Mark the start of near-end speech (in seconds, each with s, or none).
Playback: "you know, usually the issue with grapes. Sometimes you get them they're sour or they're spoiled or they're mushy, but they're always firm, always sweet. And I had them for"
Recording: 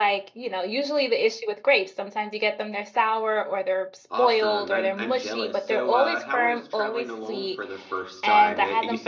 4.1 s